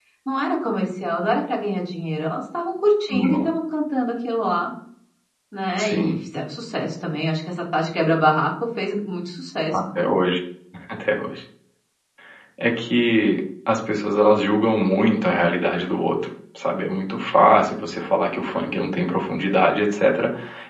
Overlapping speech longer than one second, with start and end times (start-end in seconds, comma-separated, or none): none